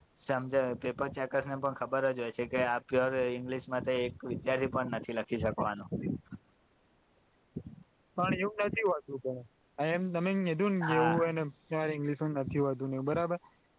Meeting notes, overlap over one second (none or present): none